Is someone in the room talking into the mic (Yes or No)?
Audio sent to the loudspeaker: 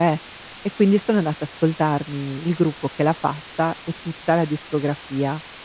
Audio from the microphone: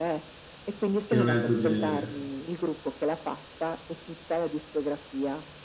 Yes